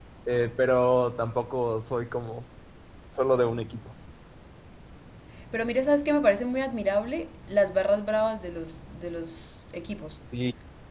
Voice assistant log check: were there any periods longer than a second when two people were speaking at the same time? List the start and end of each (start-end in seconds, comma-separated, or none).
none